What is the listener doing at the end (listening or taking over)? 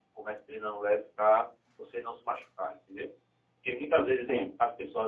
listening